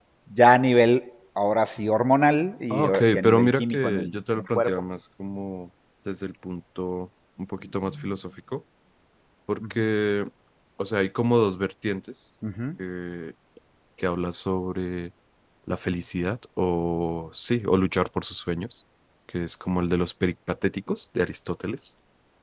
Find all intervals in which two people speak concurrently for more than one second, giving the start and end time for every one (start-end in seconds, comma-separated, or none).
2.7-4.8